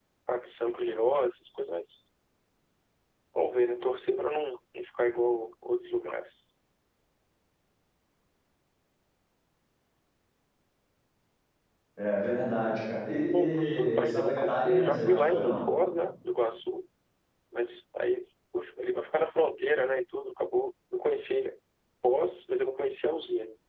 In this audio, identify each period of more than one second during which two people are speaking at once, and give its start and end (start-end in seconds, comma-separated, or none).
13.3-15.6